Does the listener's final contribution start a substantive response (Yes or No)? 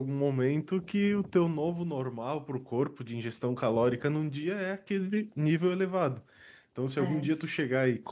No